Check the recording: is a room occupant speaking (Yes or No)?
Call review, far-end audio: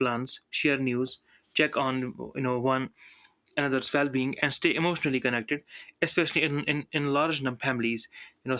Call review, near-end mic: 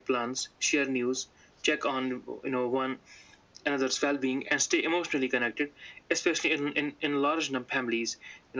No